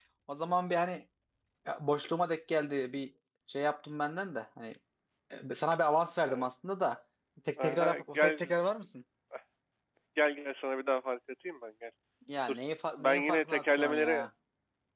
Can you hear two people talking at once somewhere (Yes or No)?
Yes